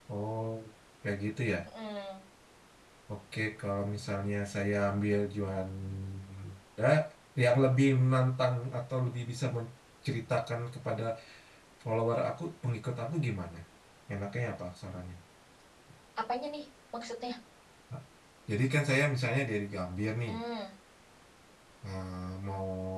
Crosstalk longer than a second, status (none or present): none